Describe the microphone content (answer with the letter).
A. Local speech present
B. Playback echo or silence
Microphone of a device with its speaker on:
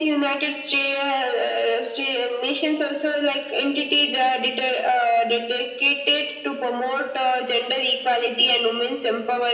B